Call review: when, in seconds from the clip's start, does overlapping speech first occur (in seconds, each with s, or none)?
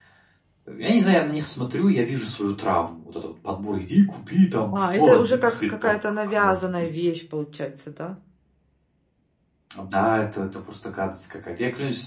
4.7 s